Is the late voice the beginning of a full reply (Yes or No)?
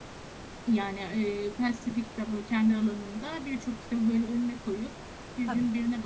No